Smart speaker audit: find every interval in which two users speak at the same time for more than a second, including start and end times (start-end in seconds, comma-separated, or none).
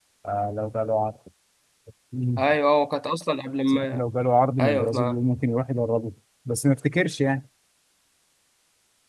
none